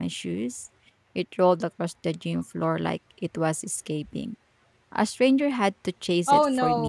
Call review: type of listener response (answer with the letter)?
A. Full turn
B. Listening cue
A